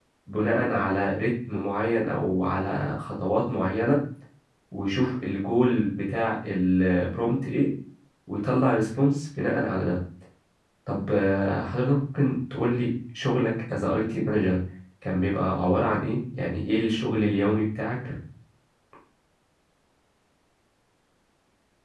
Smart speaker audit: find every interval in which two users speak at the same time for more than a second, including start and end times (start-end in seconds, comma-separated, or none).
none